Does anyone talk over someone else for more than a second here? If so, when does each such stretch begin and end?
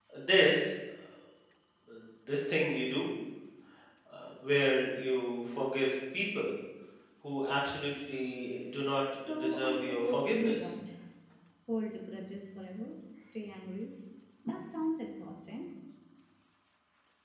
9.2-10.7

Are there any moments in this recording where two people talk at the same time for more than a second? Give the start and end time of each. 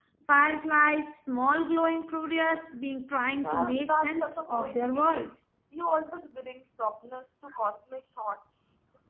3.4-5.3

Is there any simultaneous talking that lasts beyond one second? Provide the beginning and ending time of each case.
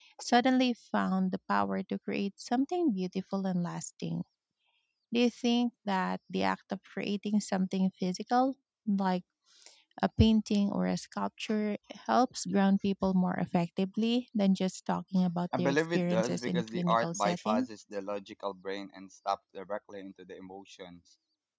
15.6-17.7

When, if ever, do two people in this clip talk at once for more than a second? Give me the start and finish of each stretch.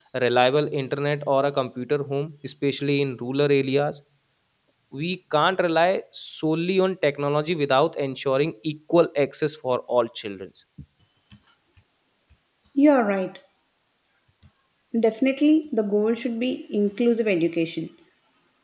none

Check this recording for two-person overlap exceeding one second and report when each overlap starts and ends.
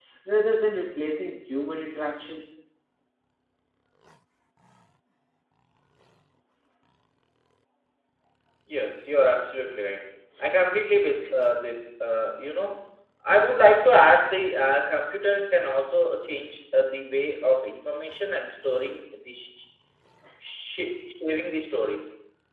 none

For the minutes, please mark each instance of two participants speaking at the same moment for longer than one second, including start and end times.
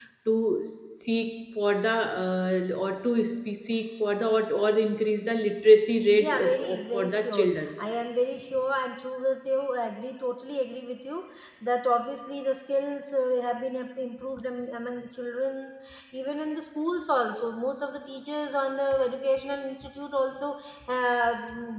6.2-7.8

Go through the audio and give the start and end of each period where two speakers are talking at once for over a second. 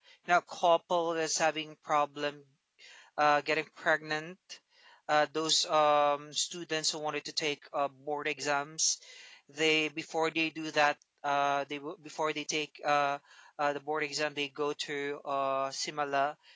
none

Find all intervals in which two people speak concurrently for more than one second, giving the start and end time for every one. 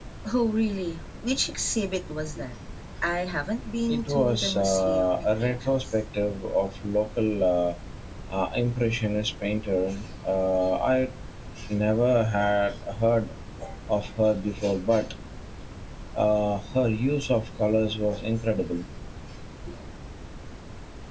3.9-5.9

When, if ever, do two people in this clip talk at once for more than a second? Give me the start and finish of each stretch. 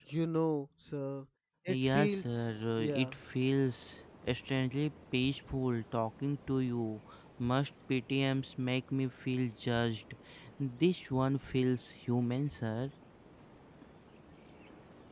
1.8-3.1

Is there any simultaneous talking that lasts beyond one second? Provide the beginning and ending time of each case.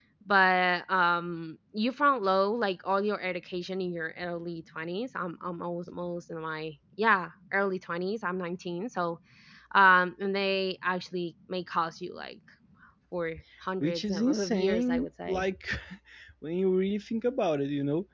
13.8-15.4

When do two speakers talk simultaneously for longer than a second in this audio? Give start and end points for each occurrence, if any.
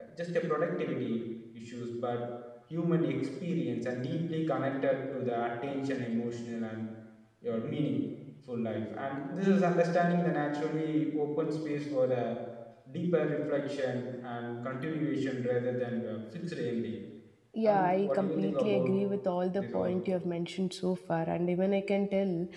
17.6-18.9

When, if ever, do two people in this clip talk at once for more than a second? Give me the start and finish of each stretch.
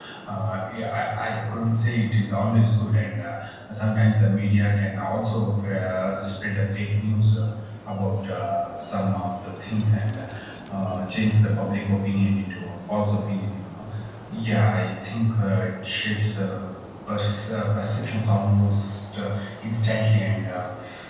none

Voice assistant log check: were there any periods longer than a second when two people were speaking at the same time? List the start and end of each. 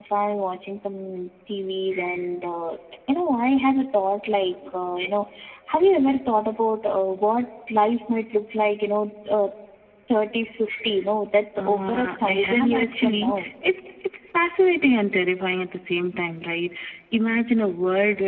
11.6-13.3

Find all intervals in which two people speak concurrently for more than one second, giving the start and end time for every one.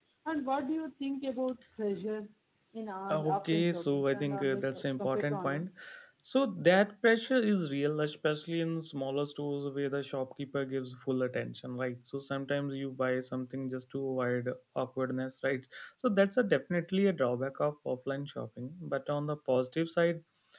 3.1-5.6

